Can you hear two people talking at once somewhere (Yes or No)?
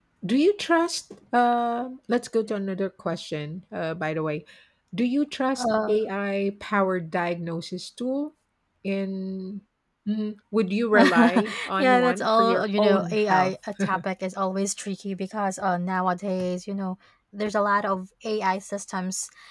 Yes